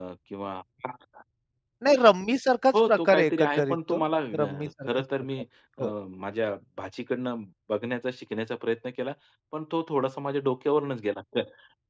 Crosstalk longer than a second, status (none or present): present